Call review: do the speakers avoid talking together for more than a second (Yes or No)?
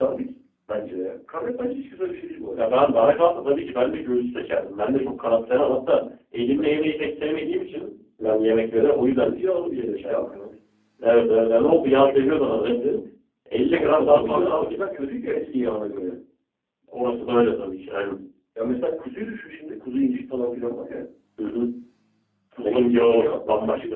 No